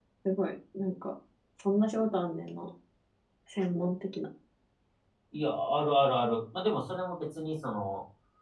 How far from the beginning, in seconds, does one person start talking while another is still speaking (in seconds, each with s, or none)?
none